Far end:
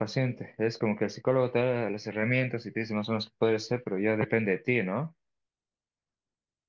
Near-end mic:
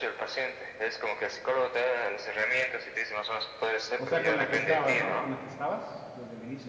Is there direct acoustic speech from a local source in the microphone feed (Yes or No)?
Yes